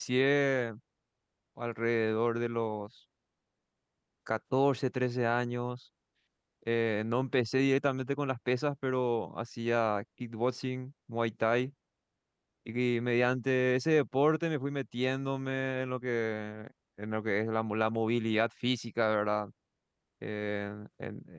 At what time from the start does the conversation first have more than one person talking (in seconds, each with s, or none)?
none